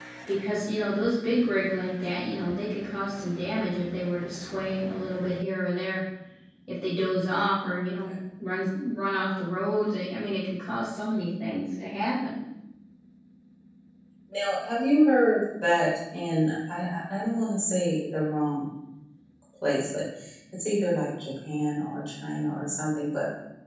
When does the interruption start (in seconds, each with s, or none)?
none